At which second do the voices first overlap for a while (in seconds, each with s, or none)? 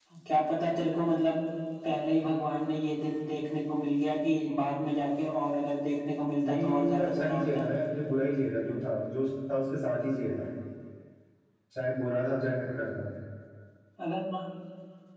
6.4 s